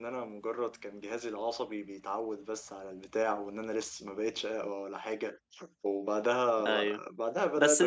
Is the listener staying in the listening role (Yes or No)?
No